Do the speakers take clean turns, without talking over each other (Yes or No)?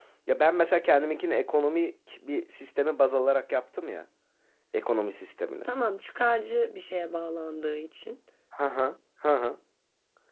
Yes